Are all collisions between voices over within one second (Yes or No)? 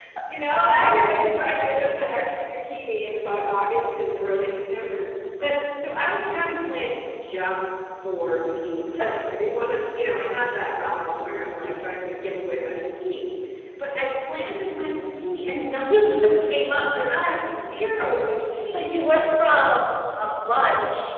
Yes